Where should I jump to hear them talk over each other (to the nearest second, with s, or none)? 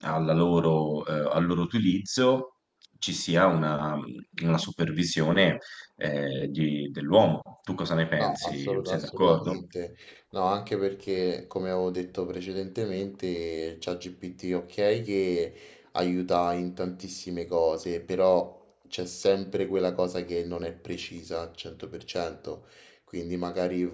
8 s